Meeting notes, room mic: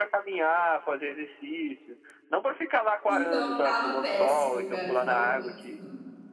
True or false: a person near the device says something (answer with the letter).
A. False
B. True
B